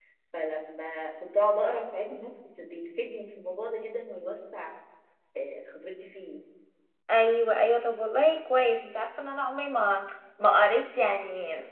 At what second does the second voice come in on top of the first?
none

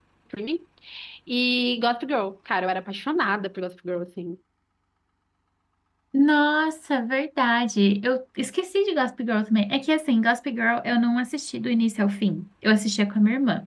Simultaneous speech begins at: none

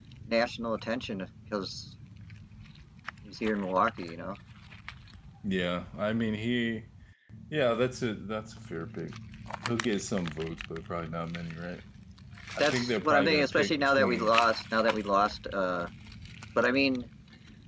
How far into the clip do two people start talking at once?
12.6 s

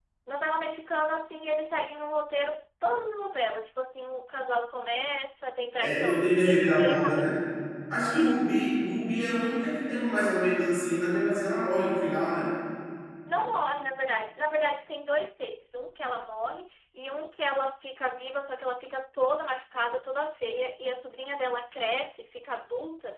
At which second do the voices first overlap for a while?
5.8 s

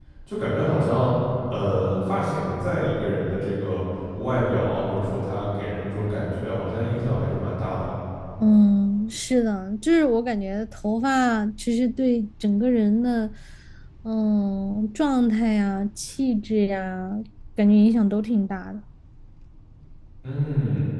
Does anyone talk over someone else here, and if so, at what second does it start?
none

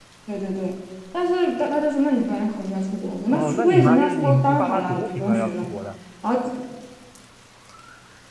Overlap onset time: 3.3 s

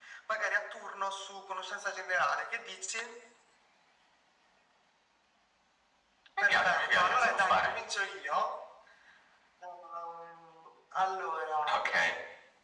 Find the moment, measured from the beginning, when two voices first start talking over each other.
6.4 s

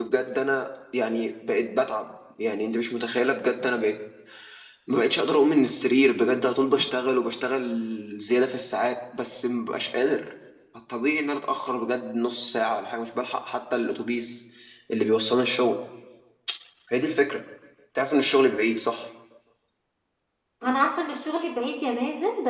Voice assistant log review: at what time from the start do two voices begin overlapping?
none

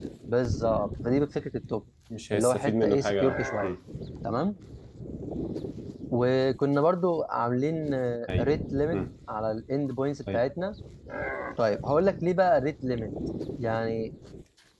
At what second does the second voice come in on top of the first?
2.3 s

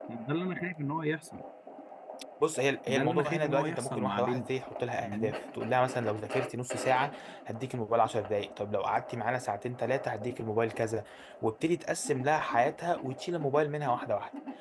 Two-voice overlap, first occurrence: 2.9 s

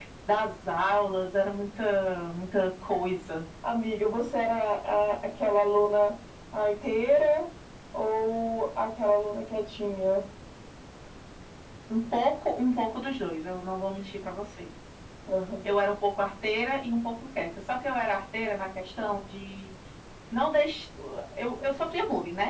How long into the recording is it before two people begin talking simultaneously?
none

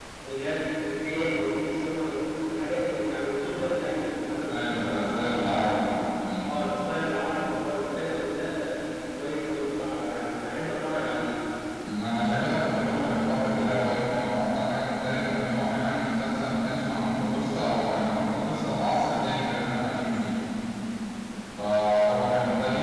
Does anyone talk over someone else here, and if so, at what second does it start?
4.5 s

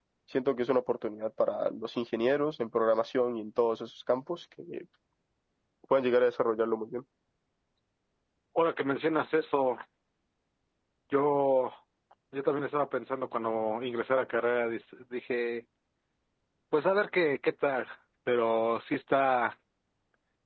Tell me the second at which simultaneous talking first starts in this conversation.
none

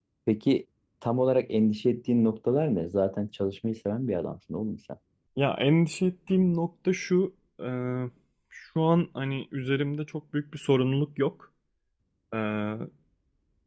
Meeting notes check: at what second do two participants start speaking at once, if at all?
none

